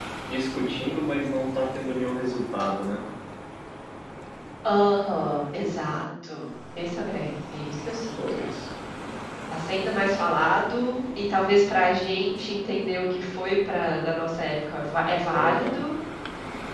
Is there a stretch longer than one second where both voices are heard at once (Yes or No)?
No